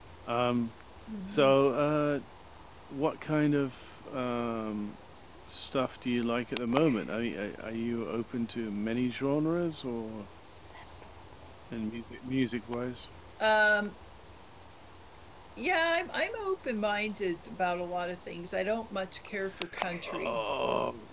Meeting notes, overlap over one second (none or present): none